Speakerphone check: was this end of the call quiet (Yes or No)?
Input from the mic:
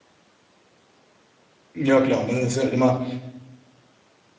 No